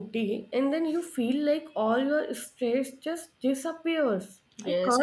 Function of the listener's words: taking over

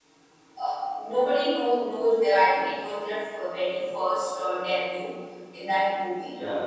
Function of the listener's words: listening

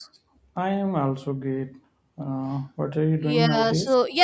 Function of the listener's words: taking over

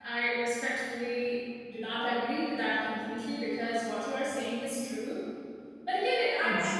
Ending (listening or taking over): taking over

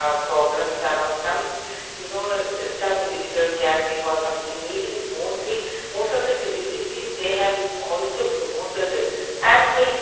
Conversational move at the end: listening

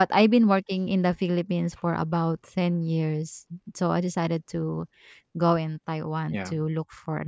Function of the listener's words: listening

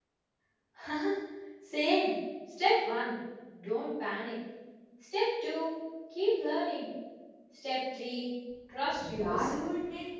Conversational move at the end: taking over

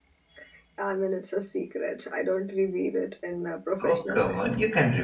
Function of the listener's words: taking over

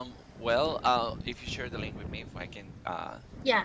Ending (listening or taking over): taking over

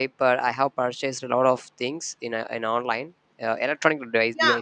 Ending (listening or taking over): taking over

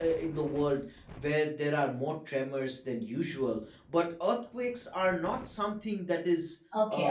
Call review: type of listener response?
taking over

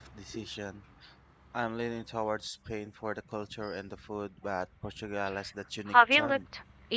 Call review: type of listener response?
taking over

